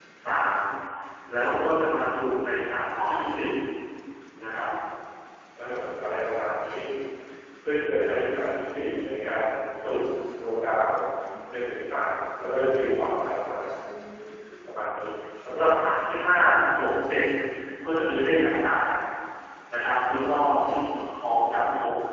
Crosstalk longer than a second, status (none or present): none